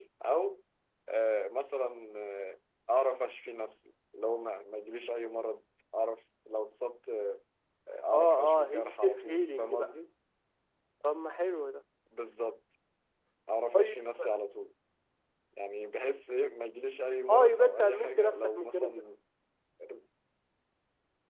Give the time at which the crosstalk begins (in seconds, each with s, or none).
8.1 s